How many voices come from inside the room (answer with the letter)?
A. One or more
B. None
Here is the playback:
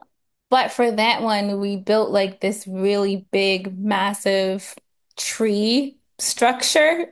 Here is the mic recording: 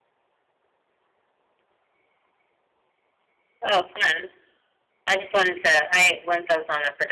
A